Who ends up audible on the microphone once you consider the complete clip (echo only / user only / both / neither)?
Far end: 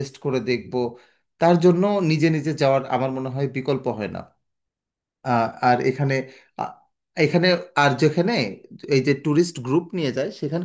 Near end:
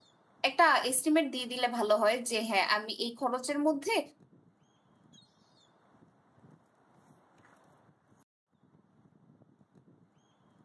user only